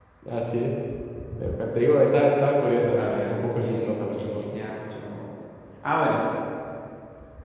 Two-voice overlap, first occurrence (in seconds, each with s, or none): 3.0 s